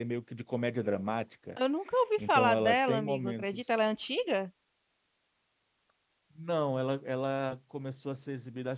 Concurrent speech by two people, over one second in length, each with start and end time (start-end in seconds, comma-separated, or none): 2.2-3.6